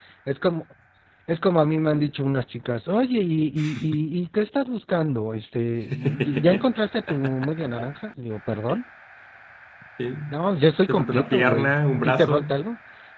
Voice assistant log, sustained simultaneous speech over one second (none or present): present